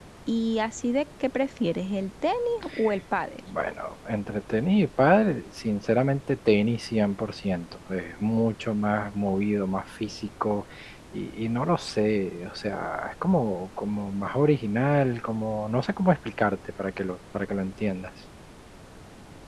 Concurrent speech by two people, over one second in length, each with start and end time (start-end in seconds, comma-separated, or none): none